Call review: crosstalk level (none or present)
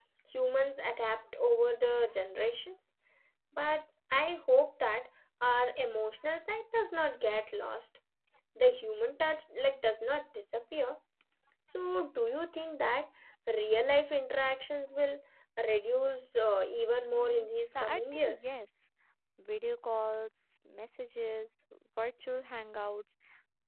present